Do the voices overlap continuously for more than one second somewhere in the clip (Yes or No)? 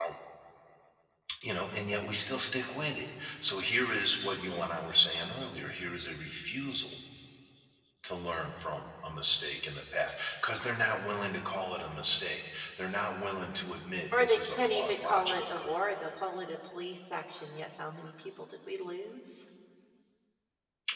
Yes